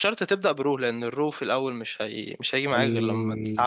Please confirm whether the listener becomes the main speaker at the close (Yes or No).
Yes